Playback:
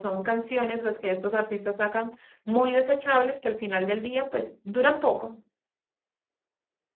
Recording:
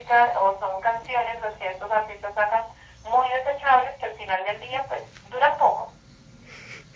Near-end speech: none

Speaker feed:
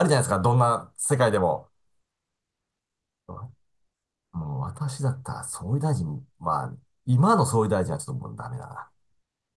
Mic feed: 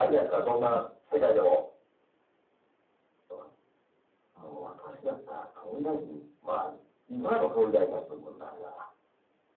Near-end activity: present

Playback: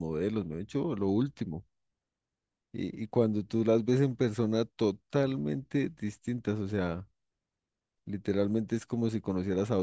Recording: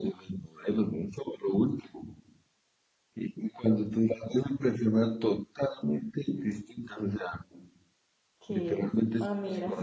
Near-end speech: present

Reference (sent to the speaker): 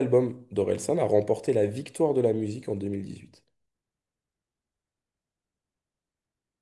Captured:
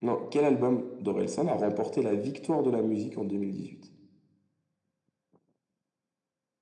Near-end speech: none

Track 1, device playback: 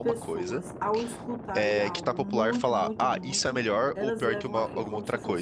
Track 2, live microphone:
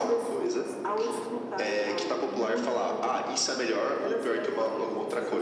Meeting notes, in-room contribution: none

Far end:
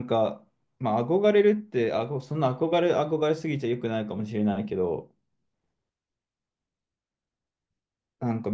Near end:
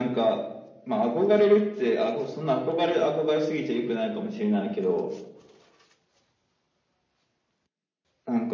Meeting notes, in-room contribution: none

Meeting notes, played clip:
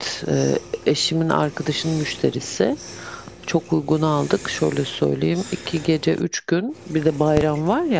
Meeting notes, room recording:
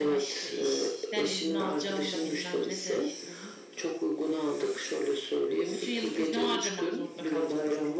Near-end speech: present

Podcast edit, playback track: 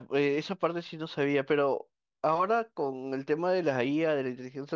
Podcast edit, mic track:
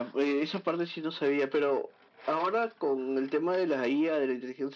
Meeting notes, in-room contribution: none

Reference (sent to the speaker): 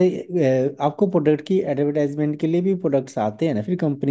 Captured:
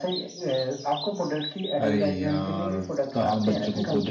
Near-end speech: present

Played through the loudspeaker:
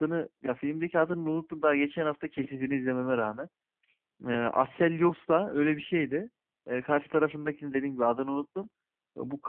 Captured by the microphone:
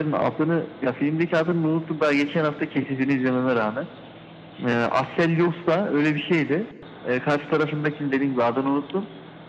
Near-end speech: none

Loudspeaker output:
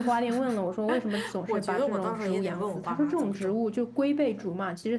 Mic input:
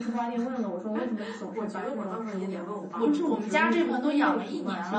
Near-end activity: present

